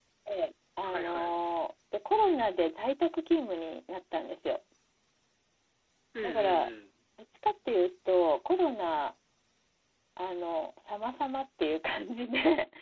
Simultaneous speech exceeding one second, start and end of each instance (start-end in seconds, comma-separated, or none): none